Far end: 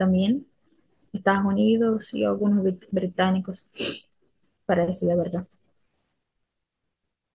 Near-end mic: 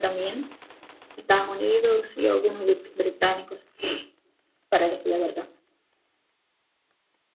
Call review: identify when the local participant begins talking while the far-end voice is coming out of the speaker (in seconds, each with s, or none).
none